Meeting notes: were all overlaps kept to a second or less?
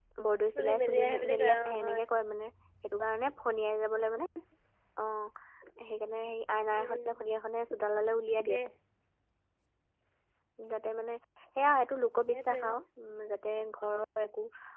No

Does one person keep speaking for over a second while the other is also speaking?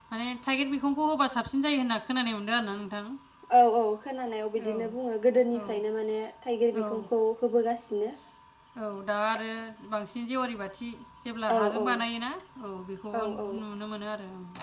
No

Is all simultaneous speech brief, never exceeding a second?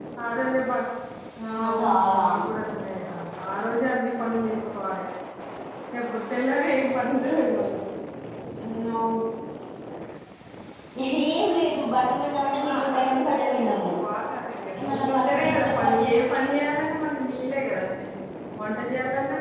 No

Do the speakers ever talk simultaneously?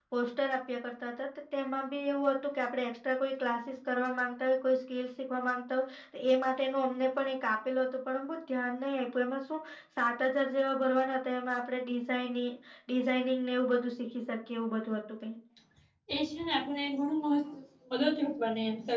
No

